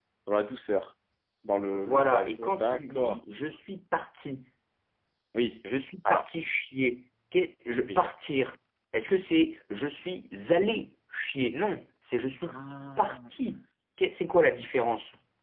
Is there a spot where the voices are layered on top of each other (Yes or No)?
Yes